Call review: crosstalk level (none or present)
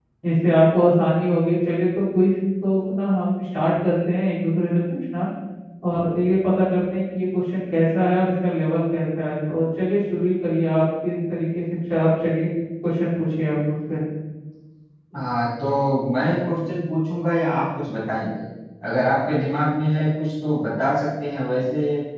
none